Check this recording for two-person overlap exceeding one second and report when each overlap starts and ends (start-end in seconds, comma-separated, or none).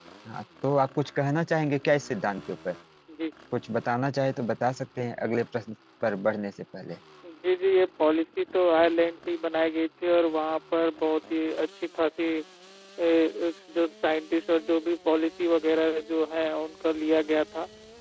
none